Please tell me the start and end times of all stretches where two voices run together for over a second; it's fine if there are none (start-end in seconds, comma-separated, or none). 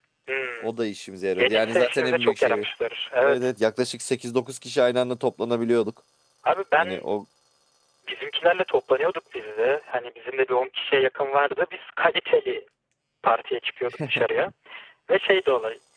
1.3-2.6